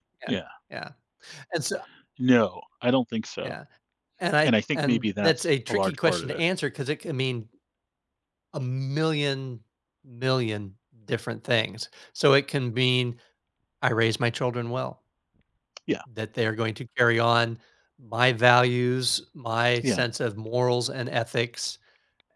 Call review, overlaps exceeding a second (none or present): present